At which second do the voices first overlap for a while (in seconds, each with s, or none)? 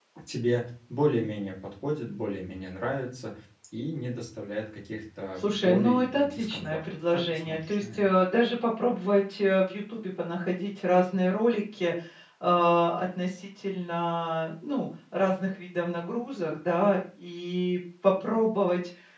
5.4 s